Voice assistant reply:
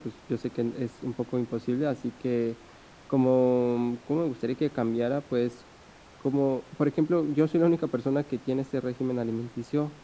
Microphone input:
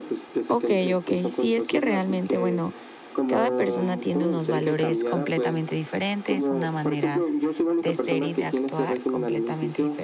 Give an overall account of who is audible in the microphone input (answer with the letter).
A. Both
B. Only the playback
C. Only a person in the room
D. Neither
A